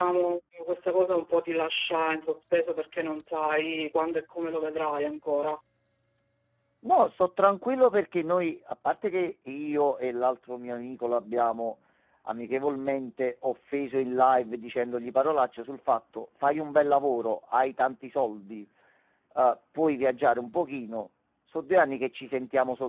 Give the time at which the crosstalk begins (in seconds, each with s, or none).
none